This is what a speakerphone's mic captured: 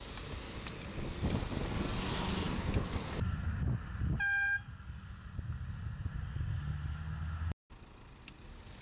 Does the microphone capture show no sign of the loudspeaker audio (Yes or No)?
Yes